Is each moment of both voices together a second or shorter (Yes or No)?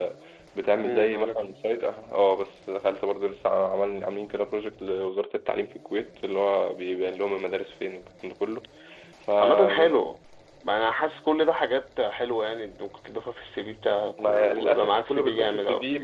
No